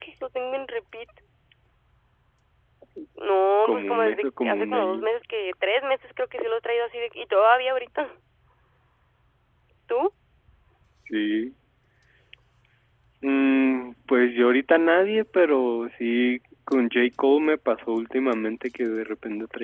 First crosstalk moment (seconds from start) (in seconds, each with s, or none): 3.6 s